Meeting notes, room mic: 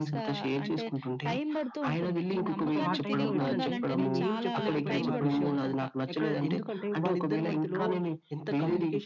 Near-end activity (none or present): present